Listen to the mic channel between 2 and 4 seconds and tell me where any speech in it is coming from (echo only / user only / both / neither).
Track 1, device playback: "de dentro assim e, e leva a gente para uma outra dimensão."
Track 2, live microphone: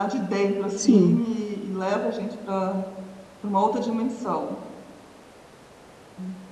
echo only